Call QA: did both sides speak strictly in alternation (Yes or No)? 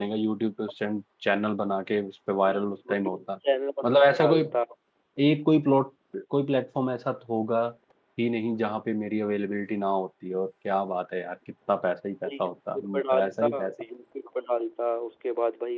No